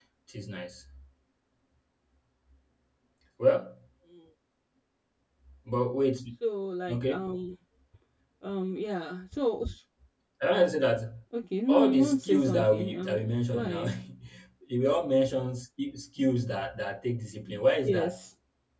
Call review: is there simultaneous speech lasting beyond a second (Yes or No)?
Yes